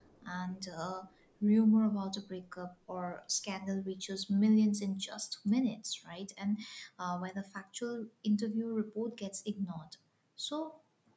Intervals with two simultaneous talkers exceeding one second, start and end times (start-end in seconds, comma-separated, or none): none